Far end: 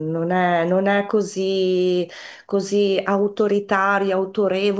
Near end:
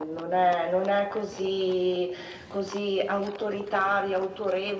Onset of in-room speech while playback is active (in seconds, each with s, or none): none